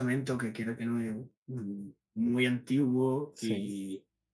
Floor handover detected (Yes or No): No